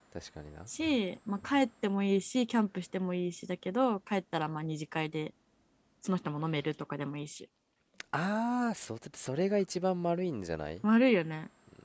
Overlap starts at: none

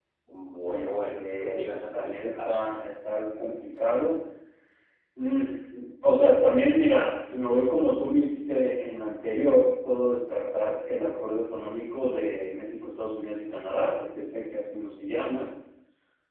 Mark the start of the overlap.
0.6 s

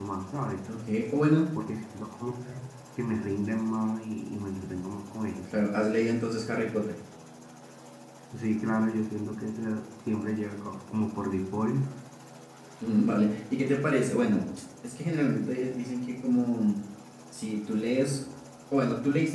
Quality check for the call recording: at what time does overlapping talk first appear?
none

